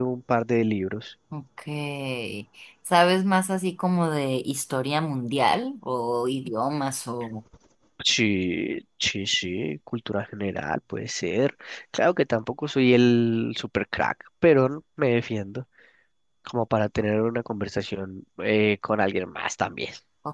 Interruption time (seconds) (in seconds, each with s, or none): none